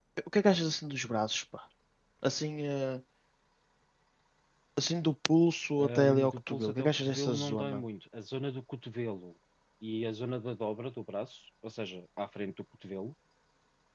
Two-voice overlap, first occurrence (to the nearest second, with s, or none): 6 s